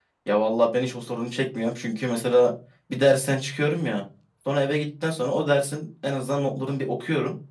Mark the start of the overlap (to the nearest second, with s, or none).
none